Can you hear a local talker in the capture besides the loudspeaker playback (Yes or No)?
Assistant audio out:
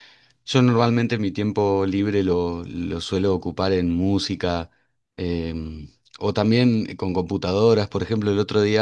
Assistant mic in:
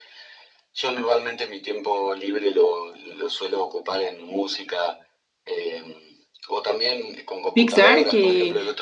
Yes